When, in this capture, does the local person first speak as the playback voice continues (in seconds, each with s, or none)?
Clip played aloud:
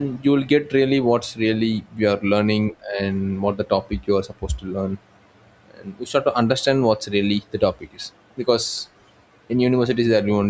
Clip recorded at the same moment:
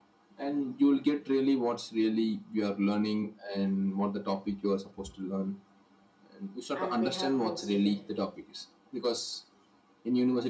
6.7 s